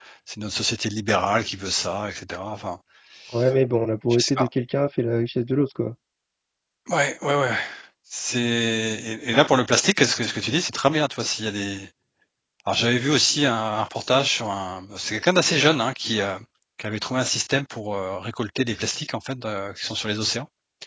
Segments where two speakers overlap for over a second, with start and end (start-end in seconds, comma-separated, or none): none